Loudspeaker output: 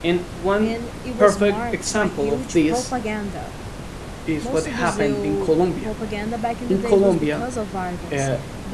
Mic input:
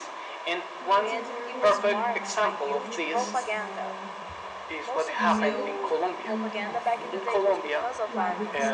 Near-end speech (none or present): present